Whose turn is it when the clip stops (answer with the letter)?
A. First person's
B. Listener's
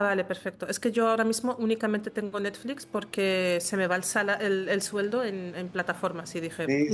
B